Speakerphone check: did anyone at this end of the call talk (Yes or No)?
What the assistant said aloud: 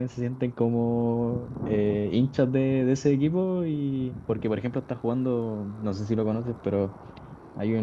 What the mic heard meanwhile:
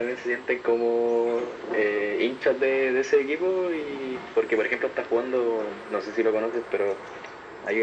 No